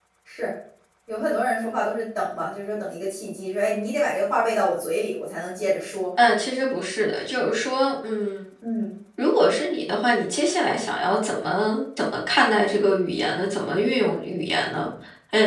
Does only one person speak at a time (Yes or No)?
Yes